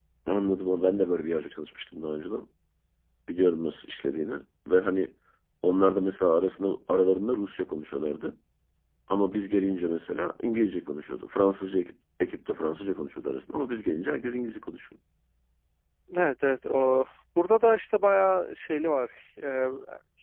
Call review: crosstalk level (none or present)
none